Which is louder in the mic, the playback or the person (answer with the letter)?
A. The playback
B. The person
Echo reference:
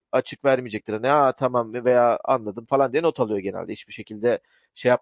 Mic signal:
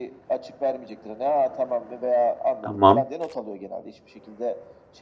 B